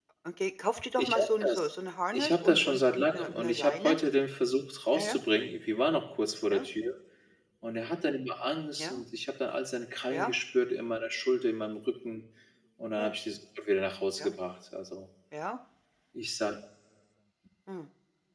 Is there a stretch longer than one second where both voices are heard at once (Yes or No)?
Yes